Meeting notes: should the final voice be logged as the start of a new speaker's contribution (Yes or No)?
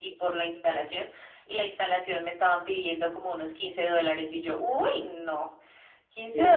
No